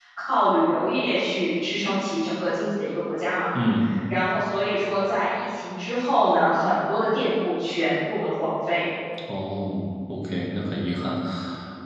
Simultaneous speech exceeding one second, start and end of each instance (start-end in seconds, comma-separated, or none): none